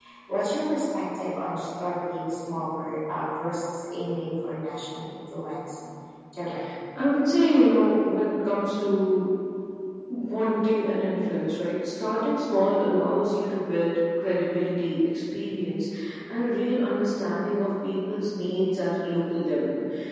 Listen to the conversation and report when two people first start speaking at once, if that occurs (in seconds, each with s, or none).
none